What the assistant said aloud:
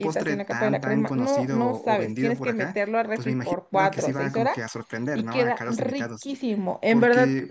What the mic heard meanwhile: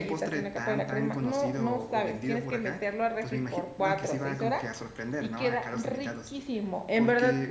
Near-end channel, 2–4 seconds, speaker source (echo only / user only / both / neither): echo only